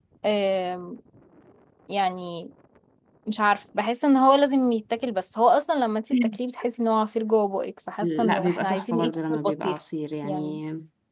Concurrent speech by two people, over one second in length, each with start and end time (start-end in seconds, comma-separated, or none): 8.0-9.8